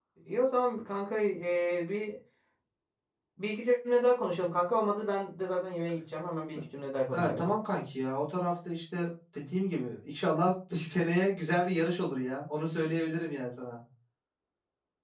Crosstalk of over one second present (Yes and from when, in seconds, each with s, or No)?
No